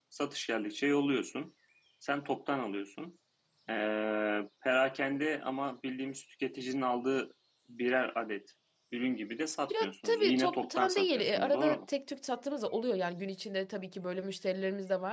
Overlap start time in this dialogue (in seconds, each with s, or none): 9.7 s